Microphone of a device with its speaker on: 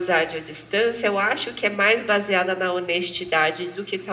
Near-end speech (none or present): none